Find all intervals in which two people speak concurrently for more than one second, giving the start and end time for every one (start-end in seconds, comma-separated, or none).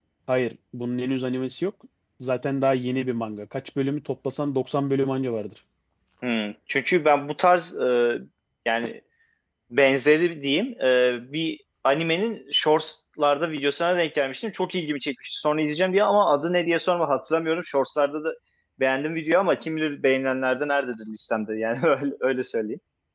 none